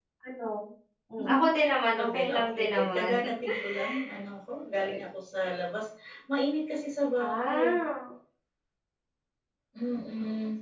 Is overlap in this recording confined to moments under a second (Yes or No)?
No